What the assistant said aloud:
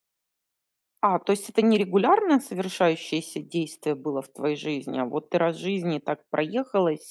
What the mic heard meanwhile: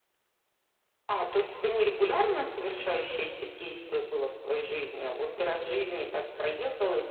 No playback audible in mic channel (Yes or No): No